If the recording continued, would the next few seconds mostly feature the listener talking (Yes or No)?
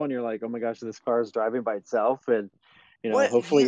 Yes